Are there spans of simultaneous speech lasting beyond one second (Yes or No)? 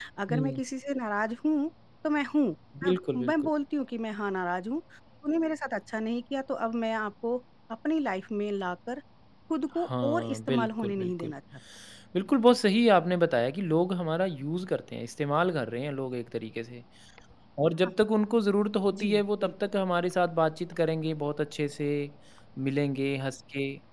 Yes